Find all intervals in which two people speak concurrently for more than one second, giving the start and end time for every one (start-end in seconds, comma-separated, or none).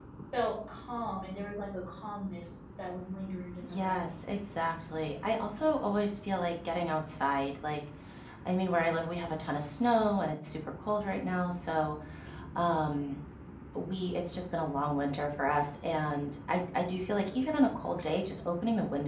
none